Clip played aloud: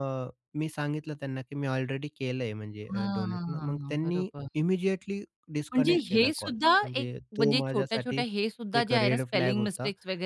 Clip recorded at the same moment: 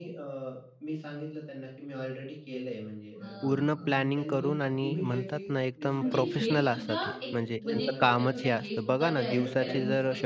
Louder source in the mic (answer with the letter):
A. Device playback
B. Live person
B